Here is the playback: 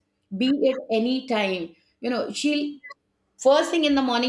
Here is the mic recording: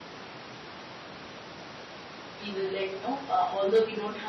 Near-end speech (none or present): present